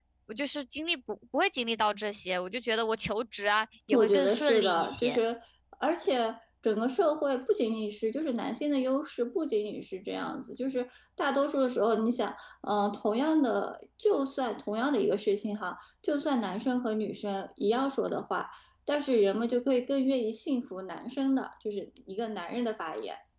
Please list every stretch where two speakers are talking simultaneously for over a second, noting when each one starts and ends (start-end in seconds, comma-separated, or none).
3.9-5.2